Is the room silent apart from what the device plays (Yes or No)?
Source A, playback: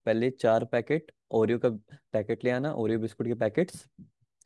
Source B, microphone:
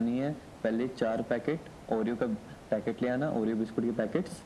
Yes